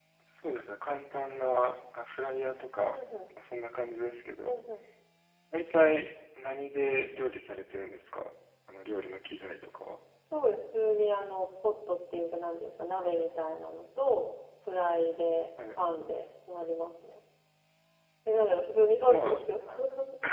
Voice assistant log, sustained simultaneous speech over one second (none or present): none